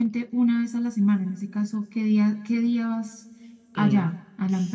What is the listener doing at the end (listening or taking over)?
taking over